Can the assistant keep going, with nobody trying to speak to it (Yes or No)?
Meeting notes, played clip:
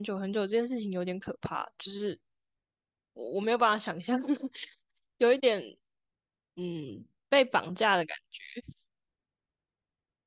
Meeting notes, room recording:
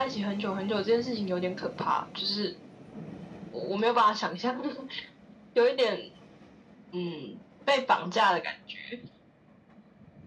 Yes